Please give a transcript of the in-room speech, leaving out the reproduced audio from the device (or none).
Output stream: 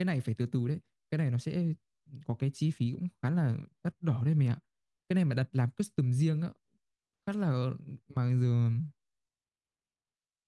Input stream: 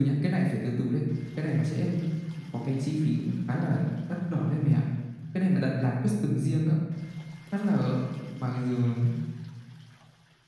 none